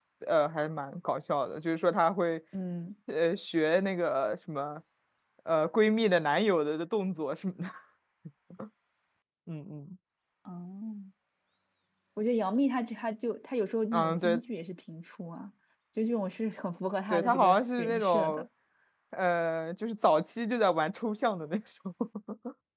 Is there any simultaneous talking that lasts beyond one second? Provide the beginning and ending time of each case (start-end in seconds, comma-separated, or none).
17.1-18.4